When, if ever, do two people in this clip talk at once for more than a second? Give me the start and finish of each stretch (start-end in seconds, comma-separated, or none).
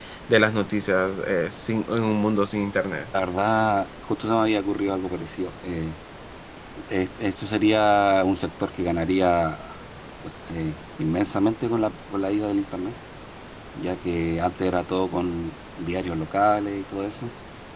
none